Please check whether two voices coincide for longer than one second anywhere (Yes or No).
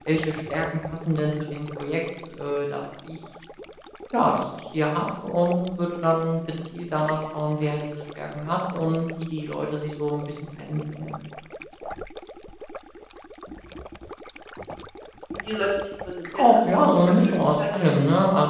Yes